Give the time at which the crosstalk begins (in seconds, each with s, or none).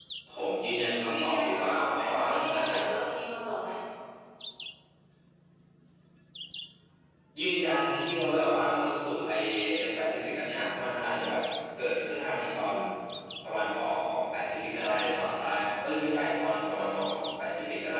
1.1 s